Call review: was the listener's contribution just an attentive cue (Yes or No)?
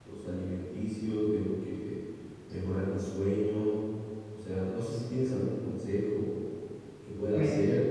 Yes